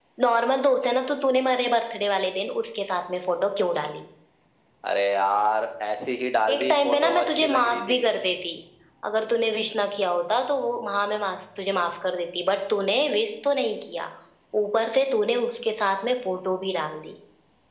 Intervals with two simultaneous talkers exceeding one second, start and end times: 6.5-8.0

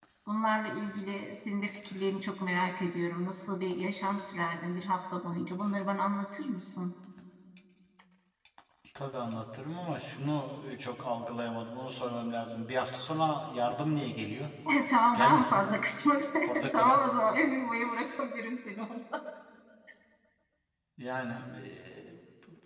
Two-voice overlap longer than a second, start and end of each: none

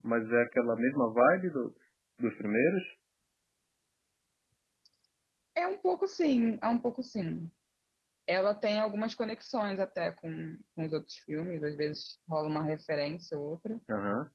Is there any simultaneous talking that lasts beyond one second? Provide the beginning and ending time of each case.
none

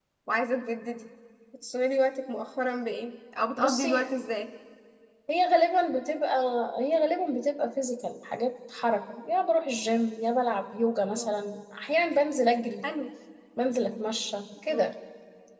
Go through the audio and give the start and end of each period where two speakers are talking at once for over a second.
none

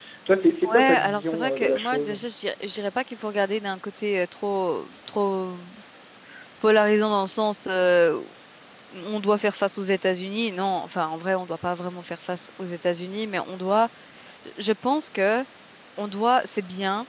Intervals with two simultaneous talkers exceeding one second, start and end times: 0.6-2.2

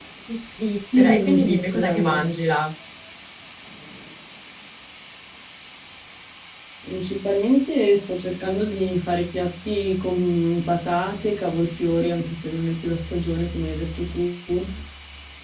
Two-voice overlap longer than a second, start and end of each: 0.9-2.2

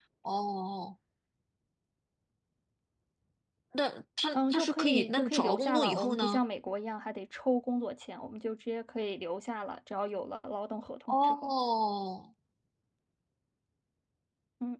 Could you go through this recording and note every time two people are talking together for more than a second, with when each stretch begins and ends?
4.3-6.4

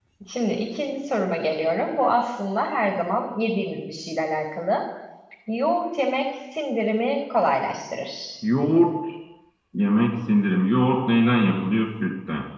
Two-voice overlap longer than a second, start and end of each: none

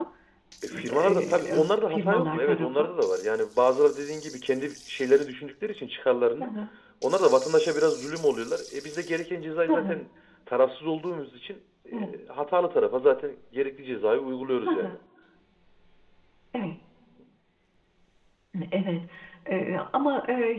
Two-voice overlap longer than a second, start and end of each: 1.0-2.9

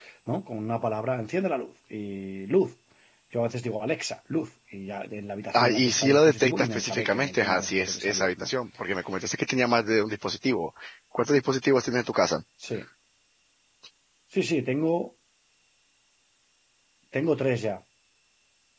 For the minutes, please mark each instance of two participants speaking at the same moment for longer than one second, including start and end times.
5.5-8.5

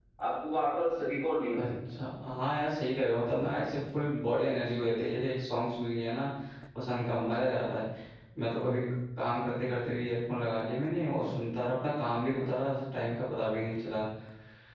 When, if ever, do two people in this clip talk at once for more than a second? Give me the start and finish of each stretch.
none

